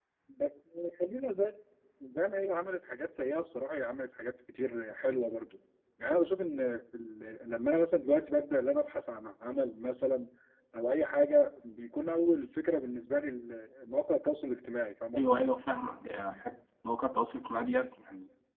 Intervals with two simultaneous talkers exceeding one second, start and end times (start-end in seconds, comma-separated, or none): none